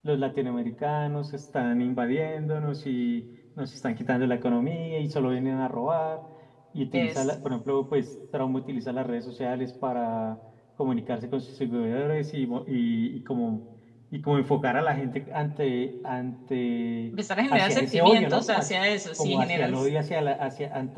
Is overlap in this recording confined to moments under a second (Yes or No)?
No